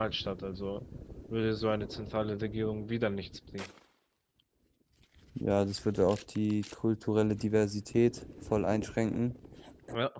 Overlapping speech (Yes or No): No